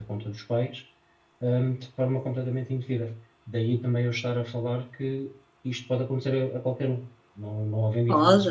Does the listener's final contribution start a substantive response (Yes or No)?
Yes